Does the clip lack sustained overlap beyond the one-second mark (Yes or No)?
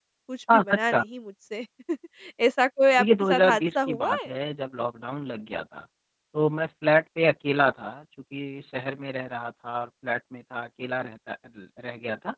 No